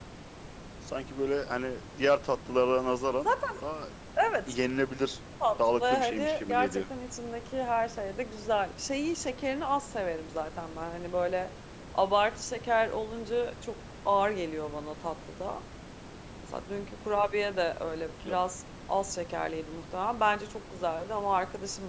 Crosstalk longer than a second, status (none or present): present